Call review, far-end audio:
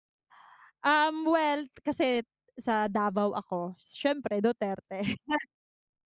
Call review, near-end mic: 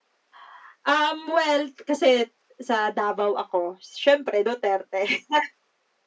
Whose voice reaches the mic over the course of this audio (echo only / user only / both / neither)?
echo only